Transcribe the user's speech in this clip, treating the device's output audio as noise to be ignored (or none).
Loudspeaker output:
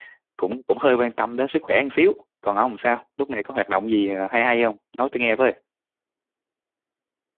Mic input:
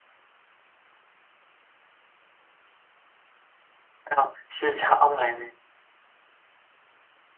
thấy không? sao sao ông lại